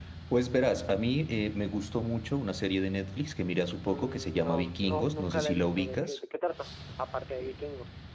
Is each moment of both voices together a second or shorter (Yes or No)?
No